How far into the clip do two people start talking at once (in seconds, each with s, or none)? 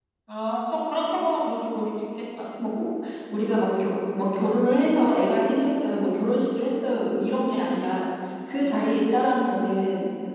none